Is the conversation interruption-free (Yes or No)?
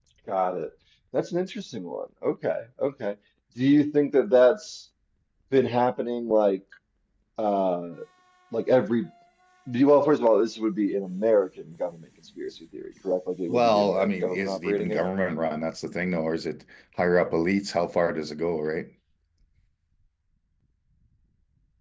No